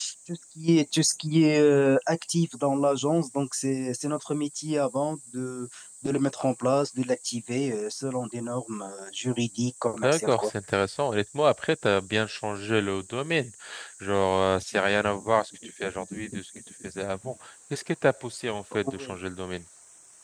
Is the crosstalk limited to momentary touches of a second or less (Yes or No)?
Yes